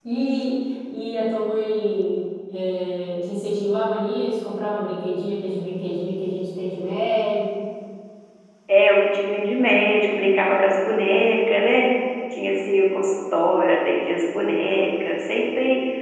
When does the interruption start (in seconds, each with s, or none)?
none